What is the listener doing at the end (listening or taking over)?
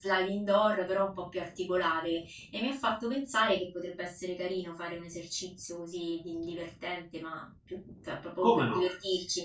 listening